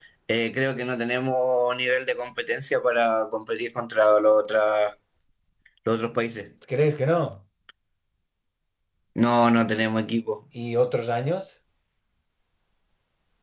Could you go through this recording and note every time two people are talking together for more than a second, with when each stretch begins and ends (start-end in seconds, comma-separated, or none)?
none